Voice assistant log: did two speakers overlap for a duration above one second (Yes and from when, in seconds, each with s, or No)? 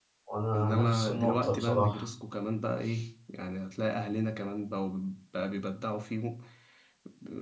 Yes, from 0.6 s